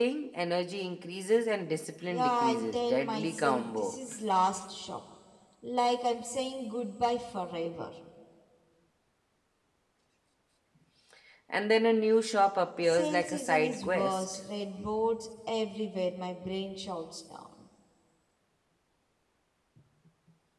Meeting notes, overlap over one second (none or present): present